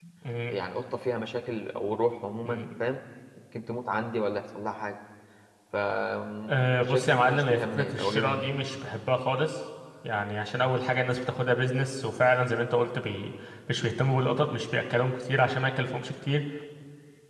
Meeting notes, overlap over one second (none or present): present